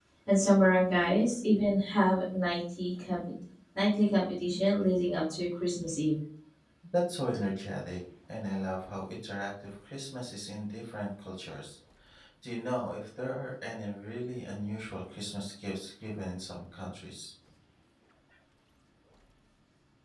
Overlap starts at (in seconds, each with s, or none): none